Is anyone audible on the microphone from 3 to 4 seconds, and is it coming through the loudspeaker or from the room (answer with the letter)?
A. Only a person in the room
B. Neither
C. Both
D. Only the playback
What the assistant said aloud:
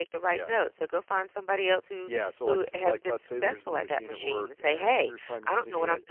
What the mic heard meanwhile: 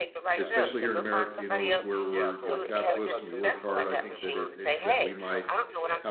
C